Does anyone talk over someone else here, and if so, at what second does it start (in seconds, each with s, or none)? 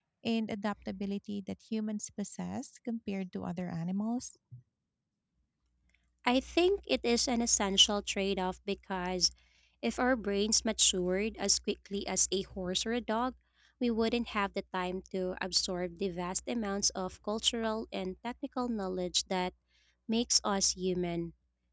none